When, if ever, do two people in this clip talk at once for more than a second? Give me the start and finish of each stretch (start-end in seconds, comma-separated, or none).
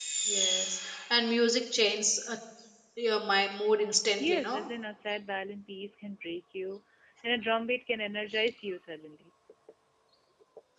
none